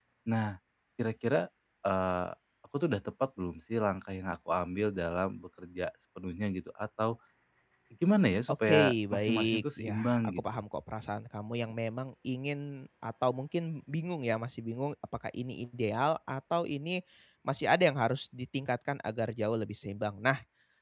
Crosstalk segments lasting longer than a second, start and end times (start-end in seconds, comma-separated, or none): 8.5-10.4